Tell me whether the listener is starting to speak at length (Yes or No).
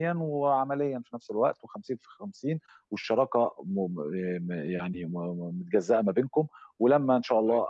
No